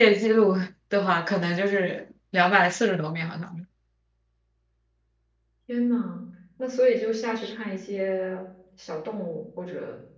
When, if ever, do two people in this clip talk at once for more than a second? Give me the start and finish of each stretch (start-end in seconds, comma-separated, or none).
none